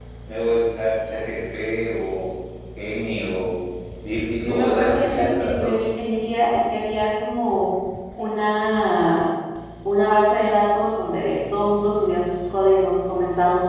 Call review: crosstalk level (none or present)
present